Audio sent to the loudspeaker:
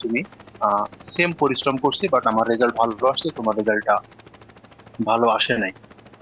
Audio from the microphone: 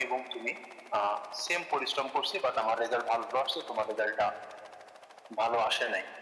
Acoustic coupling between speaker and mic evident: Yes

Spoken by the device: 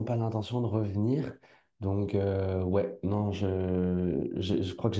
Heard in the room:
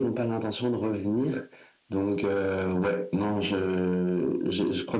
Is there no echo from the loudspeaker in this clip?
No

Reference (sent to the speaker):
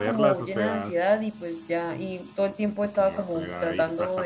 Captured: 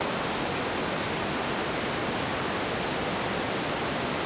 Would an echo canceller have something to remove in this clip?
No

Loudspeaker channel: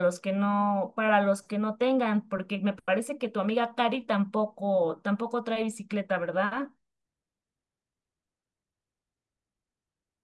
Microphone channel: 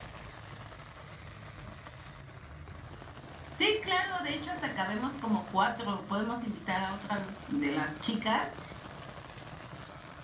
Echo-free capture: Yes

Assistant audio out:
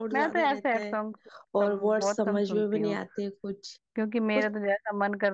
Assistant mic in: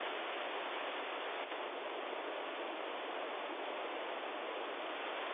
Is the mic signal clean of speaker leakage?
Yes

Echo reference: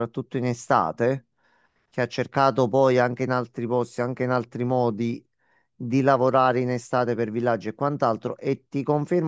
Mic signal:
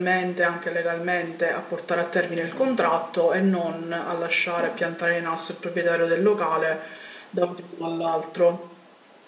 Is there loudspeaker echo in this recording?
No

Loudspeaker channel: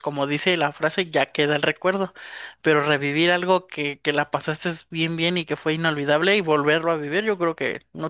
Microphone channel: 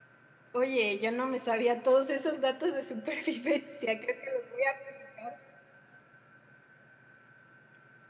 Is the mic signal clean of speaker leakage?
Yes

